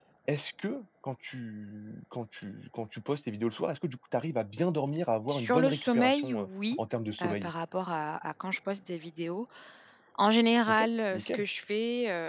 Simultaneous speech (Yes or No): Yes